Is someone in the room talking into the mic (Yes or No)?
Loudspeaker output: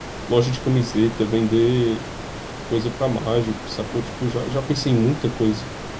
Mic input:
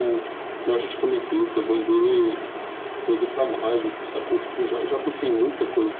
No